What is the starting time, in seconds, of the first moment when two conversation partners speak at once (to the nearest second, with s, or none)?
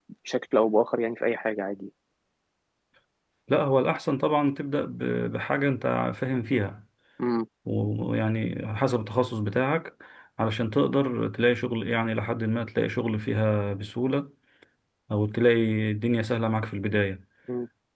none